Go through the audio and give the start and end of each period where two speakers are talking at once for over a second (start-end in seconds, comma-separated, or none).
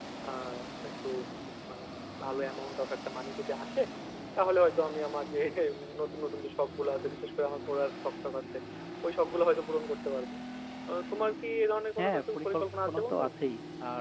12.0-13.2